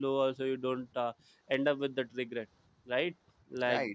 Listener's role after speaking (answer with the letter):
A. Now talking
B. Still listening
A